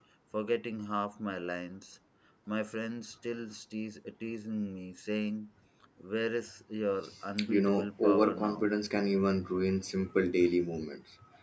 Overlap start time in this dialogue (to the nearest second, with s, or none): 7 s